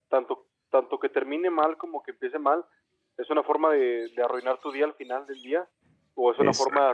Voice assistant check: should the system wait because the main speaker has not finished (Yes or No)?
Yes